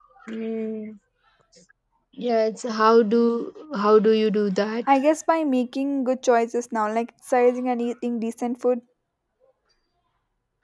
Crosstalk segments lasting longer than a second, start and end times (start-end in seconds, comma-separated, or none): none